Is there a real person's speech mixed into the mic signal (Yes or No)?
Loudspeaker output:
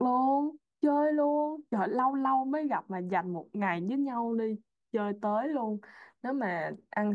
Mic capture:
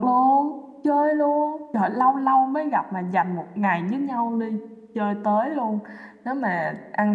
No